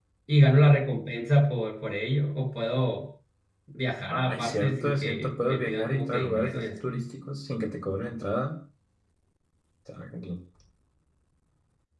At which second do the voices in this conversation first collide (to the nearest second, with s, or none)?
4 s